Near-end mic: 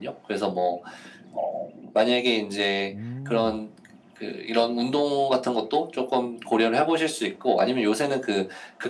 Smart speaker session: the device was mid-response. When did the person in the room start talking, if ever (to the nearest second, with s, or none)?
3 s